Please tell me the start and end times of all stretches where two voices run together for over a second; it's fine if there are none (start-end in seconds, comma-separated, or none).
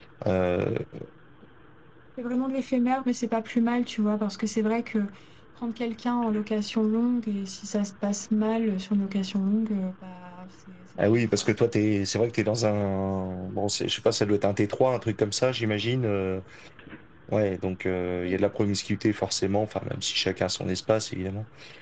none